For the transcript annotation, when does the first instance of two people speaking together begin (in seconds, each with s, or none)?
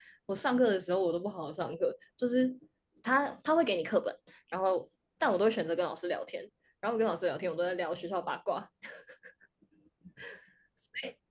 none